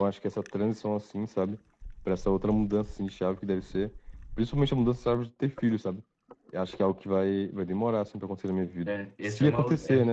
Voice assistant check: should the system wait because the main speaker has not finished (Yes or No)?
No